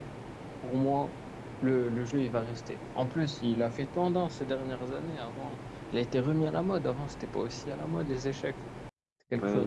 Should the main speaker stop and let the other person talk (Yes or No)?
Yes